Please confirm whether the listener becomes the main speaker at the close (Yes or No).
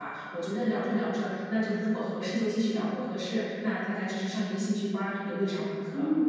Yes